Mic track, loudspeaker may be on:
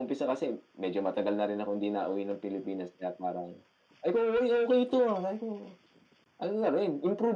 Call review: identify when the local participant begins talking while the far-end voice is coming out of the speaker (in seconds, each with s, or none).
none